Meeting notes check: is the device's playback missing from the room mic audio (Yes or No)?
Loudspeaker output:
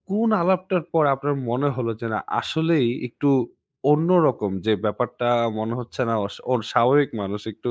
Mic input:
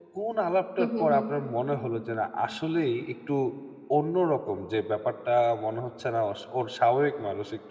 No